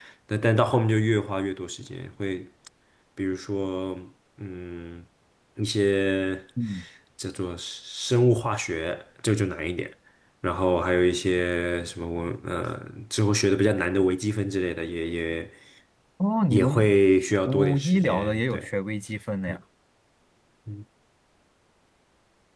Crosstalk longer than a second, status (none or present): present